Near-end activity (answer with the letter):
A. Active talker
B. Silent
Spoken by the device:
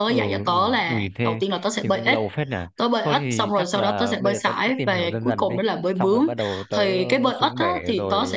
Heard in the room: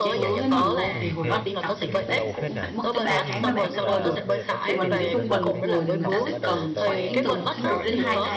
A